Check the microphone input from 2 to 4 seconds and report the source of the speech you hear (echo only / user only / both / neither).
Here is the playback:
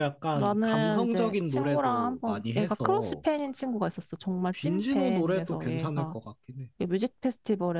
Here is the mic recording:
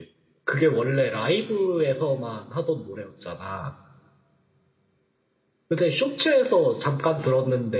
user only